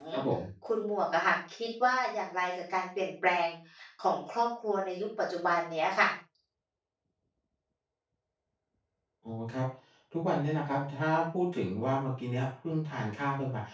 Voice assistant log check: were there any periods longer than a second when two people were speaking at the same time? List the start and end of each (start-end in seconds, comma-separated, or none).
none